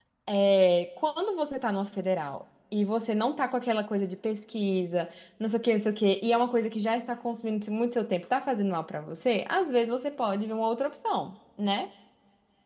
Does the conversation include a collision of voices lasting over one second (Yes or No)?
No